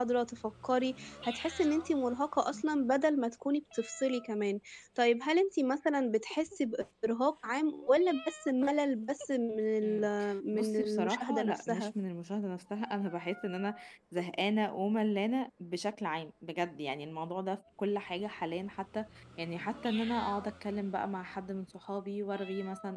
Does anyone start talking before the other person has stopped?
Yes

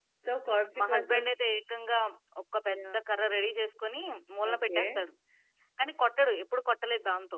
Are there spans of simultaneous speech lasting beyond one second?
No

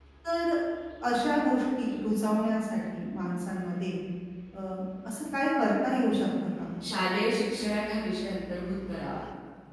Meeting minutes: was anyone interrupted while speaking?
No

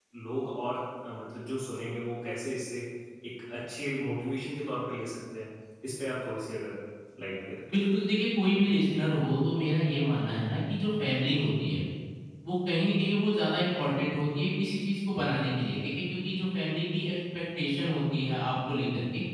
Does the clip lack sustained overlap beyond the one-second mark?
Yes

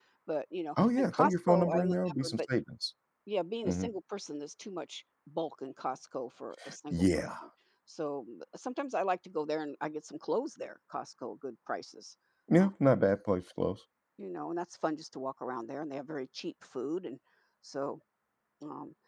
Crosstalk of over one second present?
Yes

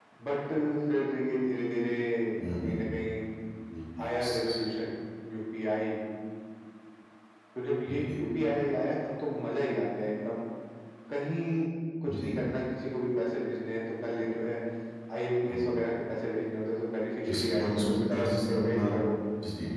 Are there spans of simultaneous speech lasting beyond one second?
Yes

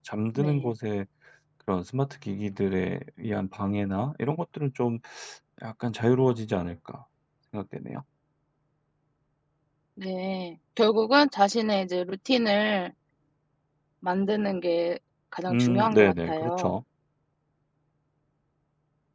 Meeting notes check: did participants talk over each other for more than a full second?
Yes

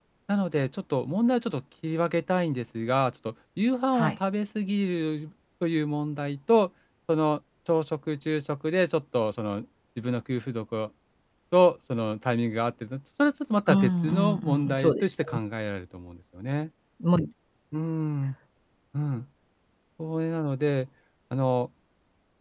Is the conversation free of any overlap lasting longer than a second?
No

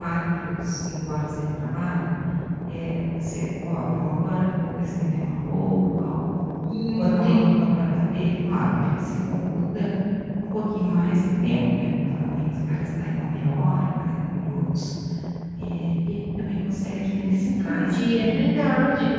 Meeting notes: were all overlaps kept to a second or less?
No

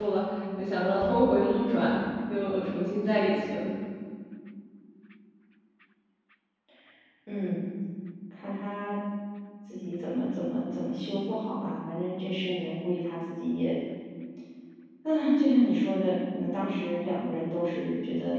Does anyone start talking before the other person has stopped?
No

